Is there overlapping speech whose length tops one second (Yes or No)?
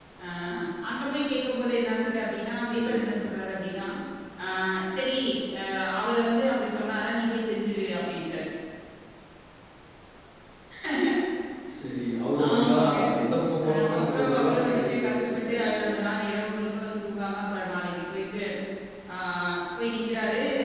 Yes